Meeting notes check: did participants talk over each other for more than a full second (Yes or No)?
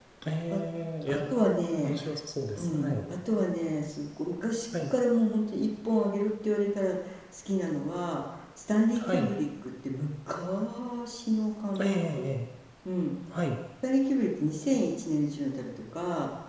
No